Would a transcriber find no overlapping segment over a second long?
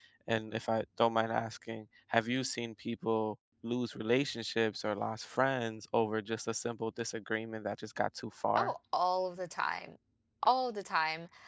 Yes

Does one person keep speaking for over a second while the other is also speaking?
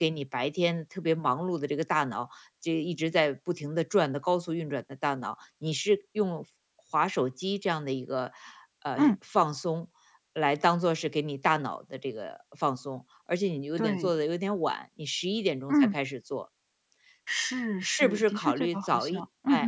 Yes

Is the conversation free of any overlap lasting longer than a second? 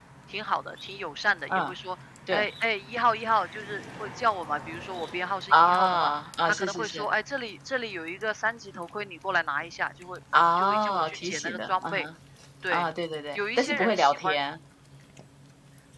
No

